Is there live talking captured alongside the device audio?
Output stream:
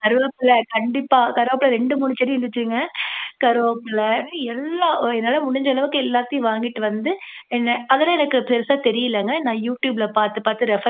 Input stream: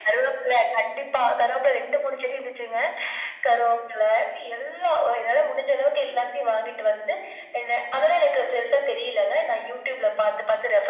No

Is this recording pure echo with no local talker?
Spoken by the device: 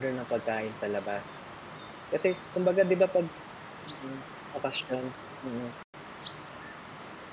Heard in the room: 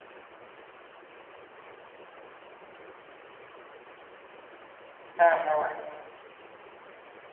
No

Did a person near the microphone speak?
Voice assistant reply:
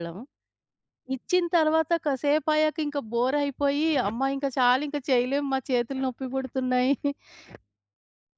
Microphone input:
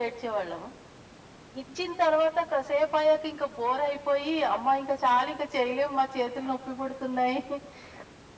No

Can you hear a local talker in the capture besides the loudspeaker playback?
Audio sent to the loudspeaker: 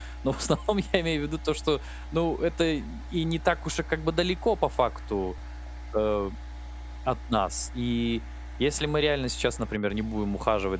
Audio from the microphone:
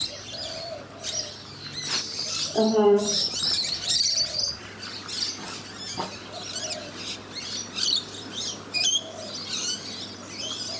Yes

